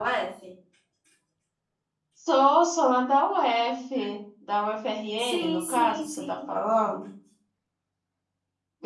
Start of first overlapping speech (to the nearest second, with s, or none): 5 s